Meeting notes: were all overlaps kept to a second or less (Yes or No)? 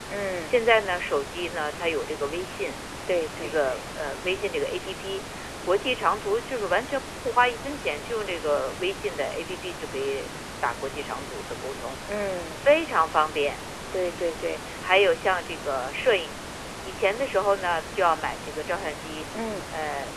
Yes